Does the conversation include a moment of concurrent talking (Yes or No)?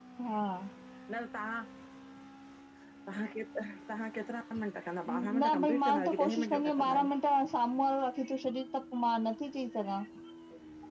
Yes